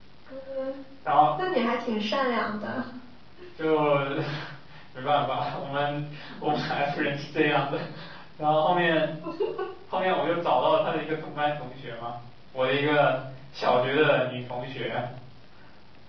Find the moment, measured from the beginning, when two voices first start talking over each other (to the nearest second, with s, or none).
none